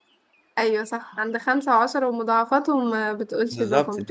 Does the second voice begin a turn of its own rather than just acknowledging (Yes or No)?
Yes